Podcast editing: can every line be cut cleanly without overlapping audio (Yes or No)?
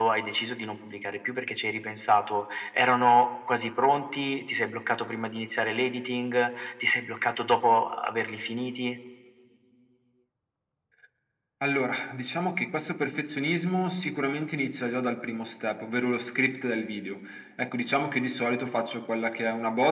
Yes